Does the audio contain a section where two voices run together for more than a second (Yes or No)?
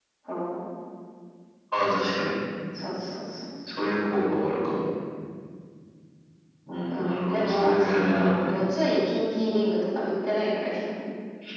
Yes